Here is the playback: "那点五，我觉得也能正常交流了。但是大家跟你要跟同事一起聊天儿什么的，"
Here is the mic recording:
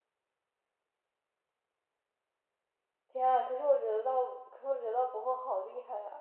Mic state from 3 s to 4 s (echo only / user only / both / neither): user only